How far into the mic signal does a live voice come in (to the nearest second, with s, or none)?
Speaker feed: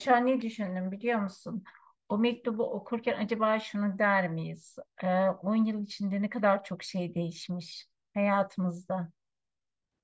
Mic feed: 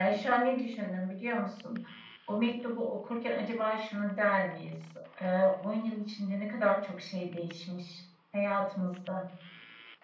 none